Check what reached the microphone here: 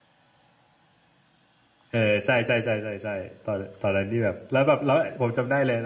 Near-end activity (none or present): present